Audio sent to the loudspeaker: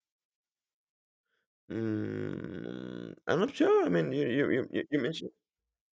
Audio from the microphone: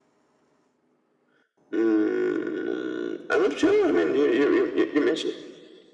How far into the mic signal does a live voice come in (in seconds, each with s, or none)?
none